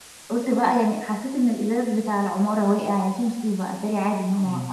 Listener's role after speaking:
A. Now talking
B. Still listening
A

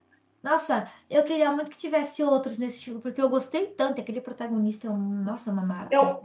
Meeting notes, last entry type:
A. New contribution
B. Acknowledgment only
A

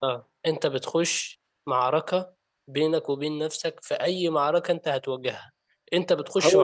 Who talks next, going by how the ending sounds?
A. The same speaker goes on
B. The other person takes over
A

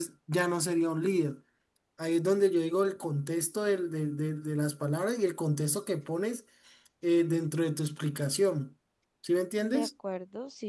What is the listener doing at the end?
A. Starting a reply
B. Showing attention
A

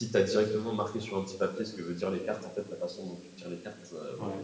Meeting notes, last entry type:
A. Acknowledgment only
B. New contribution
A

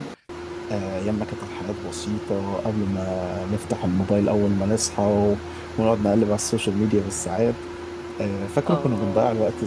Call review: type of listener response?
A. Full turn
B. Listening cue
B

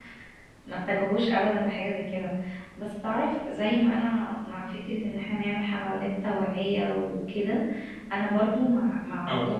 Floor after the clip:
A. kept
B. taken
A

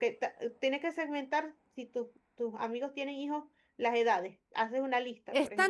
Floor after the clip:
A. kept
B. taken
B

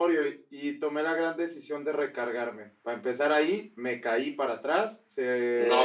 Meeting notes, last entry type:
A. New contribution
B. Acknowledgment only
B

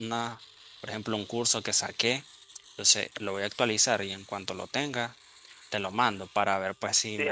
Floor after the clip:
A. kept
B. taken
B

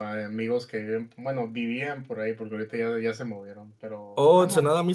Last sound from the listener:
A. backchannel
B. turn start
B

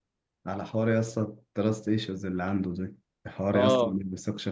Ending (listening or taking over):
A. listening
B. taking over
A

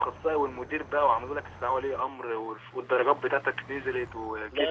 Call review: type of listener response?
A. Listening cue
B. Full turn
B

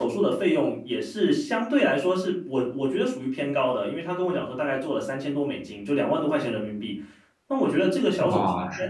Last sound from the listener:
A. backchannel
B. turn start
B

